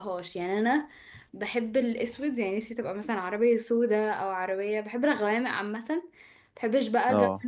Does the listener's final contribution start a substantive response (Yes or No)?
No